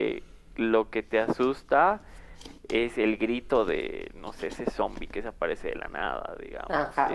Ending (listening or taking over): taking over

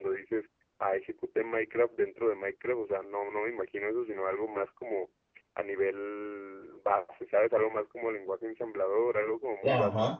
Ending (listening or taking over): taking over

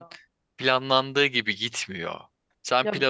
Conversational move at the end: listening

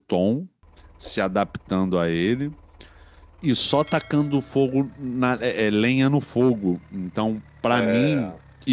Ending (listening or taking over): listening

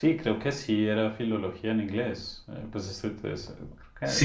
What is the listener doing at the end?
taking over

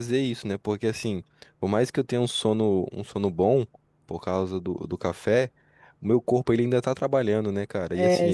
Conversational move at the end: taking over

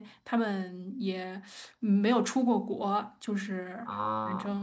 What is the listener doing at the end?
taking over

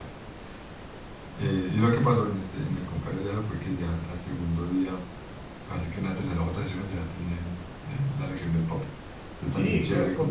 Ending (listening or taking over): taking over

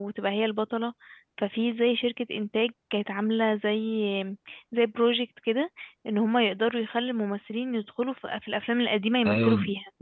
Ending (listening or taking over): taking over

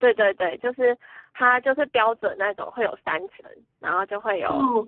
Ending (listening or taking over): listening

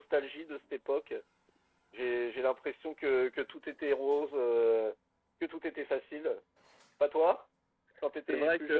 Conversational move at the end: taking over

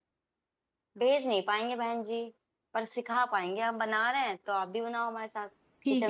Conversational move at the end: taking over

